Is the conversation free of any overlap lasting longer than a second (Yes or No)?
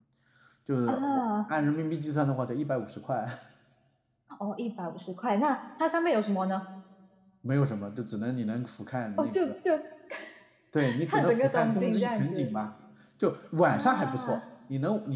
No